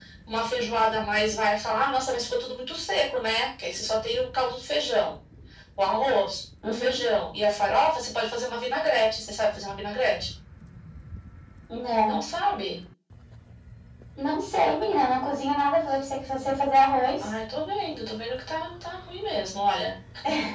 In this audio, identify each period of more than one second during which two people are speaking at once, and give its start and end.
none

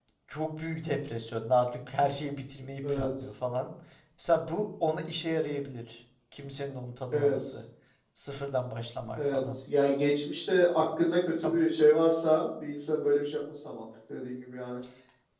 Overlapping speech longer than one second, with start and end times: none

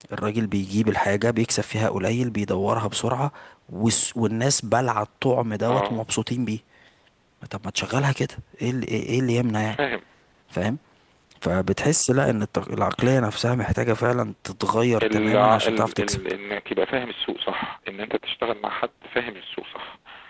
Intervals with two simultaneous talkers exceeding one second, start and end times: 15.0-16.2

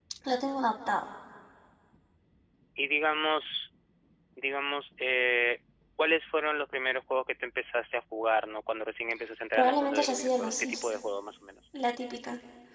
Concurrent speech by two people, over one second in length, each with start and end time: 9.5-10.9

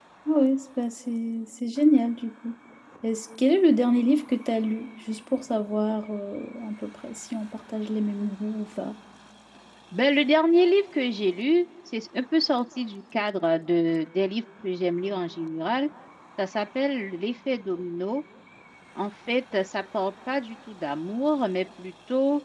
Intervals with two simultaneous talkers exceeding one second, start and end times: none

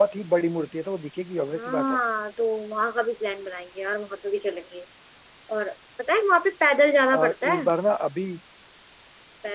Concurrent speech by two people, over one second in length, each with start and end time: none

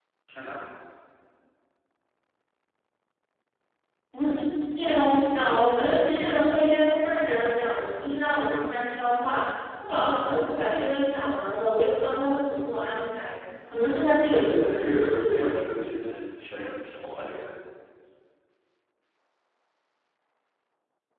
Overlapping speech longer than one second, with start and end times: 14.0-15.5

